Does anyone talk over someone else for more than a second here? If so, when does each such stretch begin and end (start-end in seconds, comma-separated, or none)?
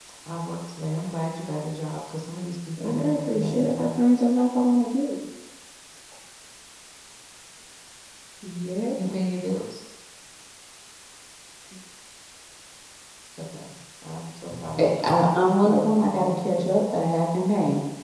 2.9-4.1, 14.8-16.8